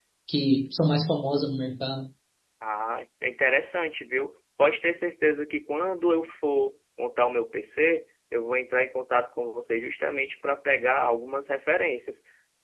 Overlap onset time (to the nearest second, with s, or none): none